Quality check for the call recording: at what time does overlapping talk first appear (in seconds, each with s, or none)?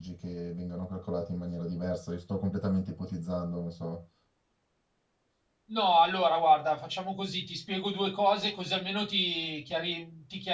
none